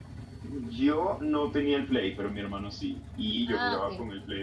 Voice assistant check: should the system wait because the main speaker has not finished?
Yes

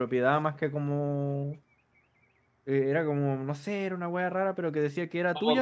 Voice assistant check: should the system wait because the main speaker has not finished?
No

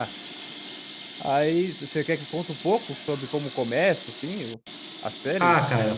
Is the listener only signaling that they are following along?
No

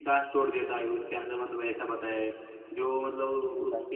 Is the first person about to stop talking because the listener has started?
No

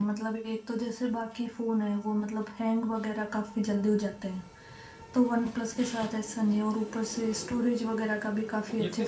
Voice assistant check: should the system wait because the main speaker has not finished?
No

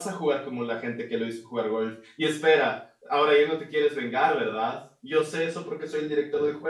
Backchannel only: Yes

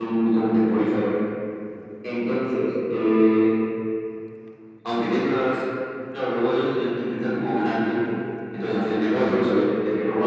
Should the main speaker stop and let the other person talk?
No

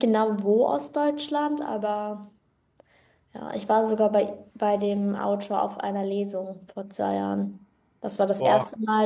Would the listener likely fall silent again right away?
Yes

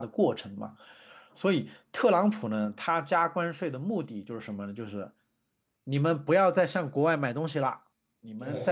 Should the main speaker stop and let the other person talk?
No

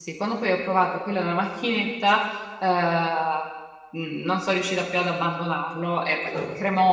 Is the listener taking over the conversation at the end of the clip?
No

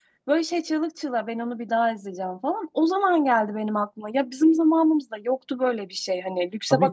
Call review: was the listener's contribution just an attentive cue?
Yes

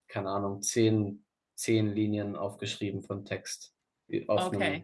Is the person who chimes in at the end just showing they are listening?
No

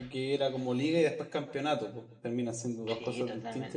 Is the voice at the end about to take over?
Yes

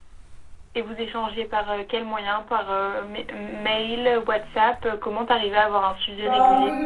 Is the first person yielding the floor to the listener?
Yes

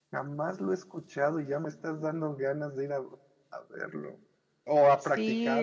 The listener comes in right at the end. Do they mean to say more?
Yes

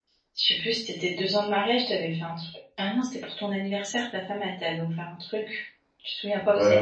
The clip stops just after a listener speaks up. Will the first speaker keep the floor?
No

